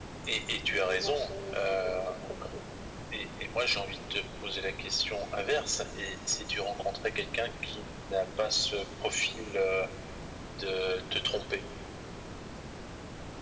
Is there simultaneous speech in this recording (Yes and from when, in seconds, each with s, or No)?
Yes, from 0.8 s